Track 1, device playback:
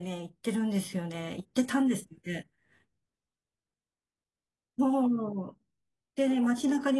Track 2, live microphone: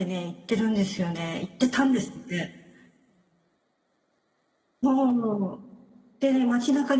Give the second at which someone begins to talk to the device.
none

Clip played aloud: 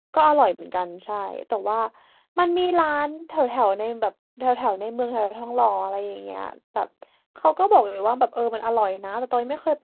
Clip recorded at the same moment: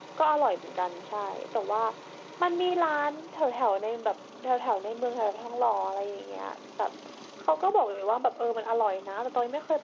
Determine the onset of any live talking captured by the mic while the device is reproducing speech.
none

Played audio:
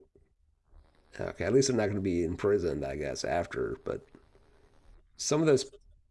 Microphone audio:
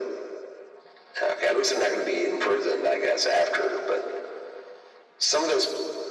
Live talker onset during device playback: none

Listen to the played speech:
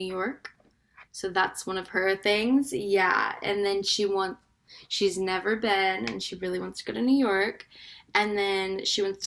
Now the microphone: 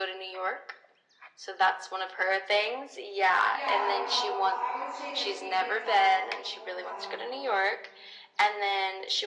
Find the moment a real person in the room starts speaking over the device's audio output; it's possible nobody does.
3 s

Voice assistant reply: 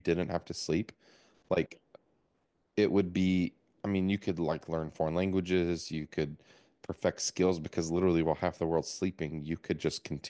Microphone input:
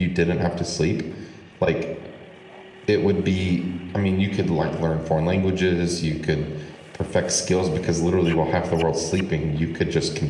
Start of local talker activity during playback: none

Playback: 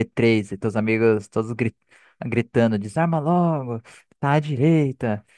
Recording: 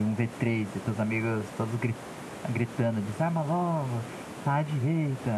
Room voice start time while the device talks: none

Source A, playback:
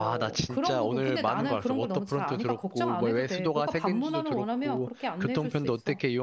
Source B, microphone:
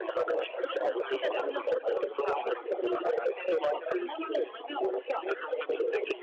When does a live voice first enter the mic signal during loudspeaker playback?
none

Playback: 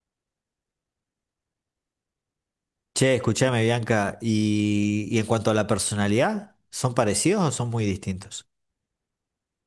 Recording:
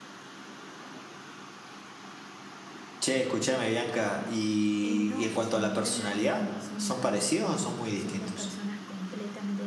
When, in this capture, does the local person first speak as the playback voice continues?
5 s

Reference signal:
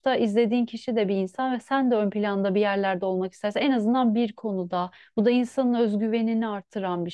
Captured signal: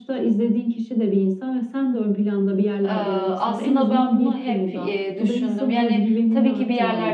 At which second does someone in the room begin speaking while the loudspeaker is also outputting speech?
3 s

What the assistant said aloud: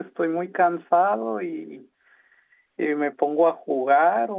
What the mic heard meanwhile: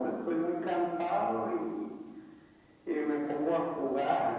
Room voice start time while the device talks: none

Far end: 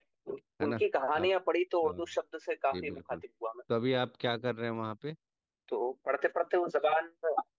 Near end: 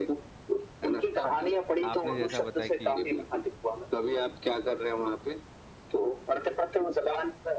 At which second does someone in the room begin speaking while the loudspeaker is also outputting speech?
1 s

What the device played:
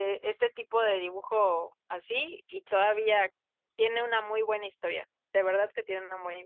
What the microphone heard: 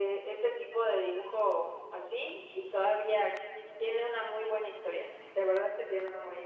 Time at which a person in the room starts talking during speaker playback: none

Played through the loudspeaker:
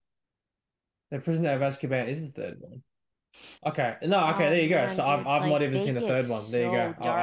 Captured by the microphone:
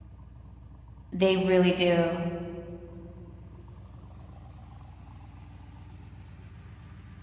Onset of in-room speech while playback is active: 1 s

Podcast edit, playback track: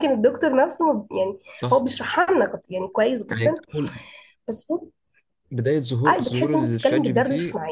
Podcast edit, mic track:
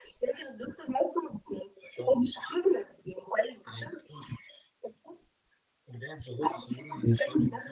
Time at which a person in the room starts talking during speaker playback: none

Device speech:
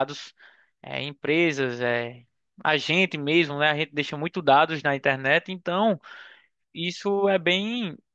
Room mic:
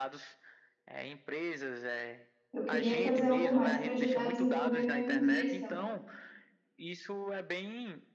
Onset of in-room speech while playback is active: 3 s

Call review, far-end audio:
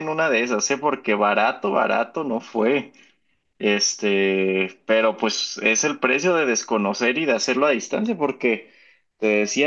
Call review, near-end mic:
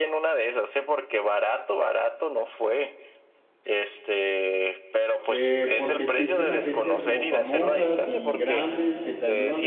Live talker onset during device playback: 5 s

